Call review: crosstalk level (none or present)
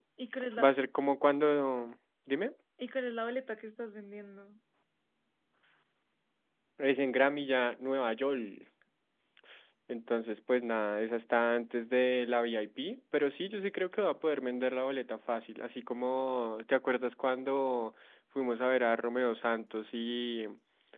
none